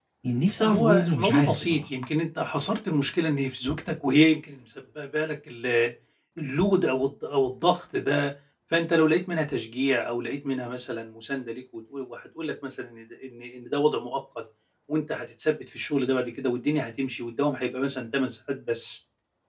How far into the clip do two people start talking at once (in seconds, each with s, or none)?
0.6 s